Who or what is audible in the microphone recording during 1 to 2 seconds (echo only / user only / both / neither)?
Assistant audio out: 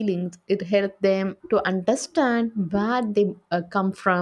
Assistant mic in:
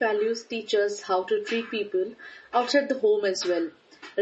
user only